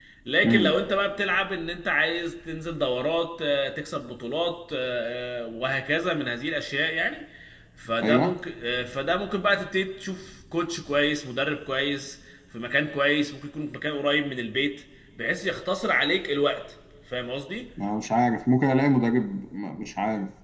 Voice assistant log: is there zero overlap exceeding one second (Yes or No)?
Yes